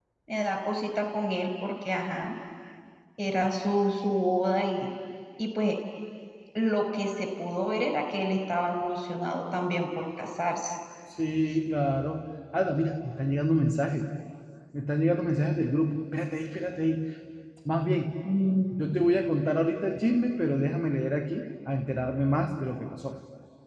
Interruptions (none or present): none